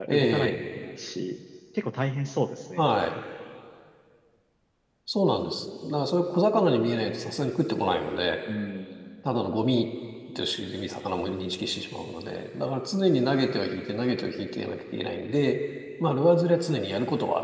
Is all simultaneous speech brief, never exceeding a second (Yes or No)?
Yes